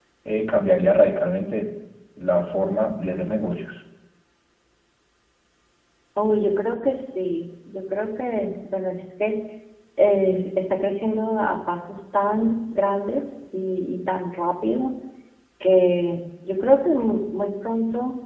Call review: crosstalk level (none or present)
none